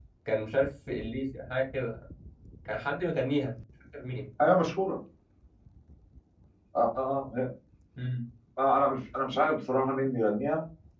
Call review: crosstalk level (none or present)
none